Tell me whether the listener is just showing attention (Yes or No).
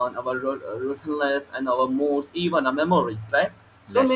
Yes